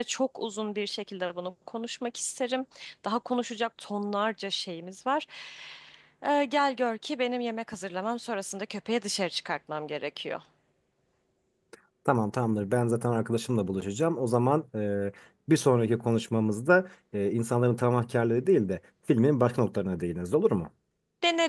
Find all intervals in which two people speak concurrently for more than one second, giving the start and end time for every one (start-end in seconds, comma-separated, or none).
none